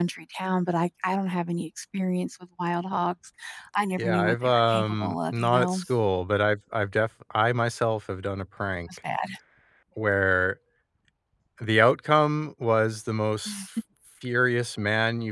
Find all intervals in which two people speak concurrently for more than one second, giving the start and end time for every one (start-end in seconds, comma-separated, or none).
4.0-5.8